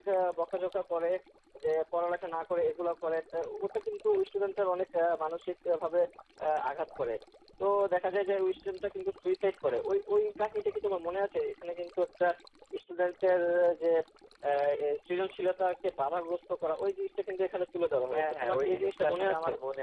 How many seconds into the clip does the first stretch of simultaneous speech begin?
18.1 s

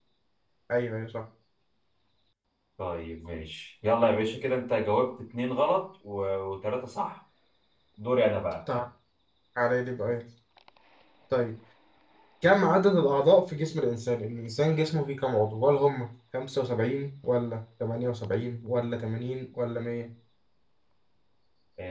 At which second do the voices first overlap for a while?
none

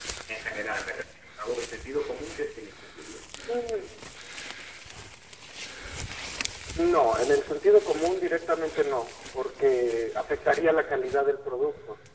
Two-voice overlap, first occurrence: none

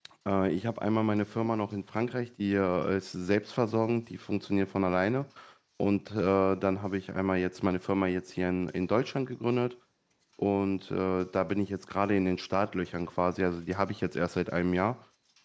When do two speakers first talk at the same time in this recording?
none

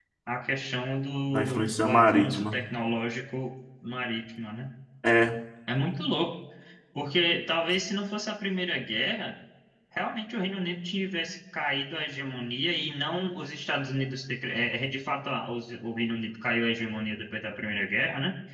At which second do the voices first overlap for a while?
1.3 s

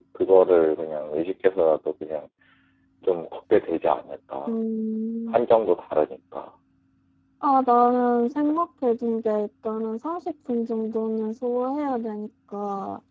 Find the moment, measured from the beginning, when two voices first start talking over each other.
none

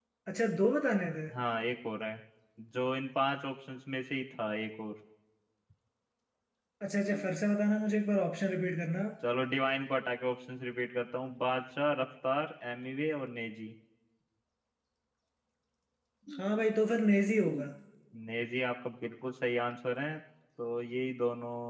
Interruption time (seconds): none

